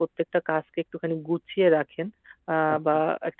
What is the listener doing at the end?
listening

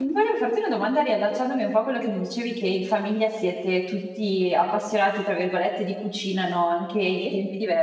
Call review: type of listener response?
listening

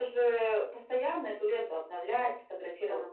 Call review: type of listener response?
listening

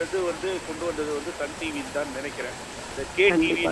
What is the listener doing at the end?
taking over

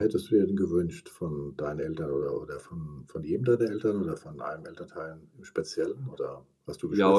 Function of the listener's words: taking over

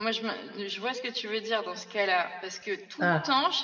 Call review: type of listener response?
listening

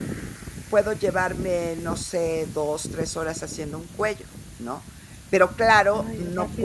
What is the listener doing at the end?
listening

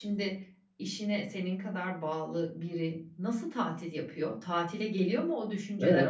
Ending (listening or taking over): taking over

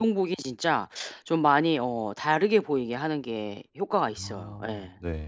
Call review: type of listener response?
taking over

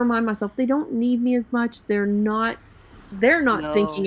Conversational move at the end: listening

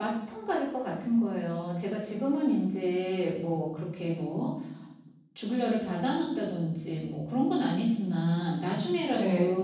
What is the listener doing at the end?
listening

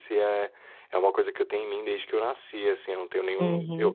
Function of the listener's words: taking over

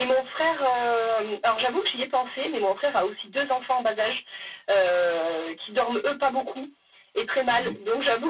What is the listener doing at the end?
listening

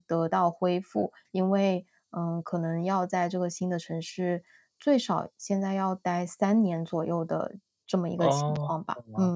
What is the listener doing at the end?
taking over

